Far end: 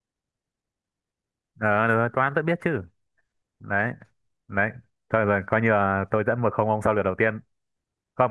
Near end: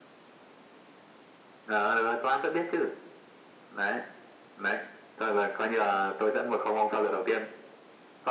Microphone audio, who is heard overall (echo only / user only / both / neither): echo only